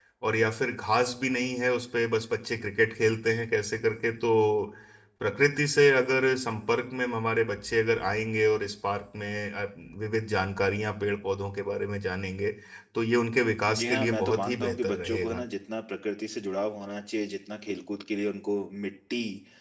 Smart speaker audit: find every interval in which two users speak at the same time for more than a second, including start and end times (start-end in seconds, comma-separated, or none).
13.7-15.4